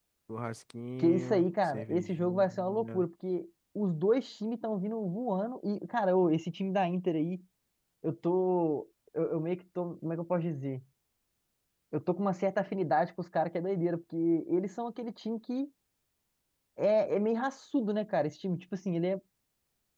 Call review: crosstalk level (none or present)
present